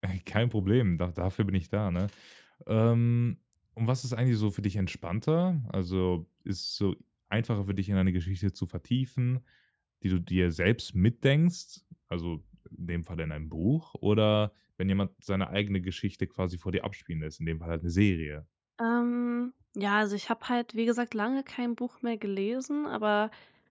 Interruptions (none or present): none